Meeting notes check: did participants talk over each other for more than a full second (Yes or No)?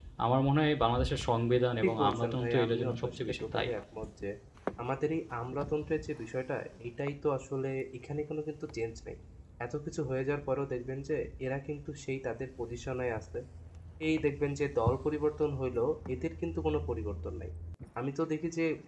Yes